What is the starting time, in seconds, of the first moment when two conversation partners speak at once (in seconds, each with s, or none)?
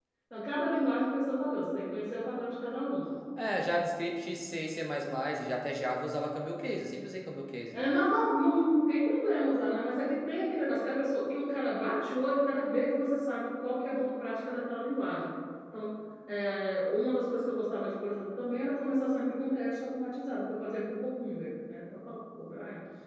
none